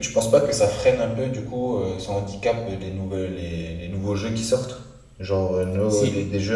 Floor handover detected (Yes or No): No